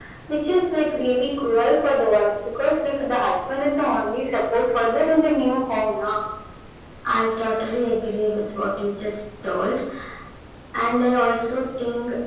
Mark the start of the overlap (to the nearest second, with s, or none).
none